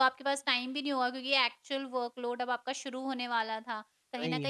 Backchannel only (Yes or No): Yes